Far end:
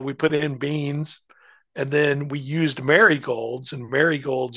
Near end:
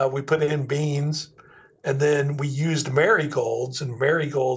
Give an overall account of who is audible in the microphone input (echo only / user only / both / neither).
echo only